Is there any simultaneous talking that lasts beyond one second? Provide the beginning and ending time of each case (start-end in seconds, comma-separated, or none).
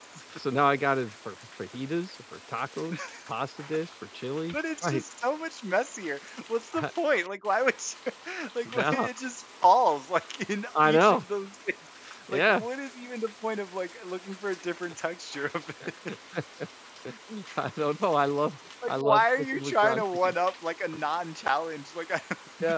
18.9-20.3